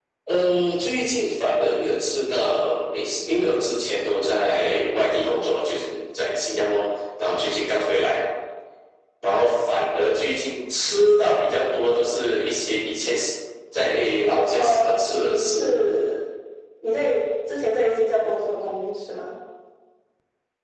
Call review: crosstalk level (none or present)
present